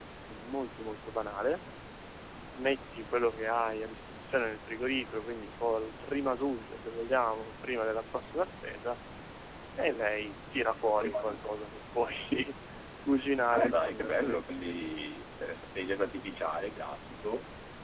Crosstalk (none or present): present